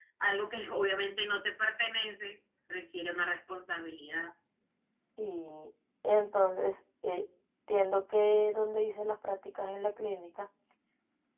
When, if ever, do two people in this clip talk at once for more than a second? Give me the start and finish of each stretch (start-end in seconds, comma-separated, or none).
none